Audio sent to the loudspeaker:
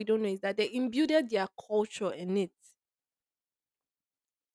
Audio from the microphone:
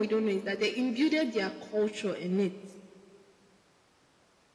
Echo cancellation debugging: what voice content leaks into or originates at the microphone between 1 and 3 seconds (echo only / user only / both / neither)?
echo only